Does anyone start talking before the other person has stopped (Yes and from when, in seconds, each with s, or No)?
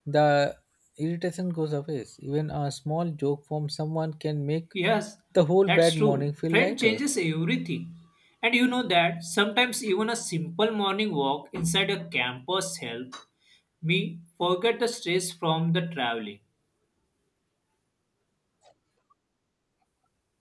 Yes, from 5.7 s